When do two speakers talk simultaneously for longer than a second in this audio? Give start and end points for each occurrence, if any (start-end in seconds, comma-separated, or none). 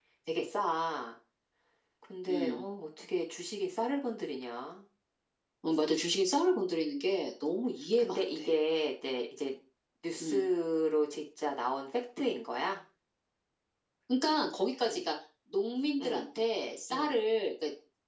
none